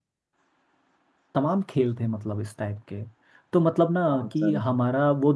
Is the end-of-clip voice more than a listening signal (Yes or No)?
No